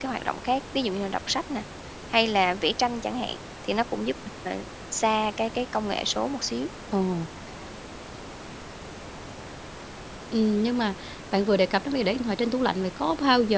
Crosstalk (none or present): none